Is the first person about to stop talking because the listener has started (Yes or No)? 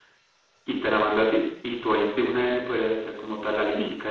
Yes